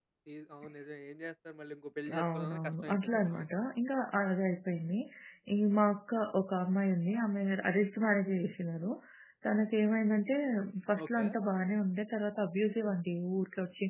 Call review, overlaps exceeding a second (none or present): present